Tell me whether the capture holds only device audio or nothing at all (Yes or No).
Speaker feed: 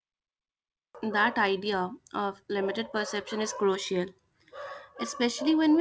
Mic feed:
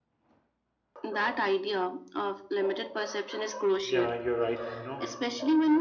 No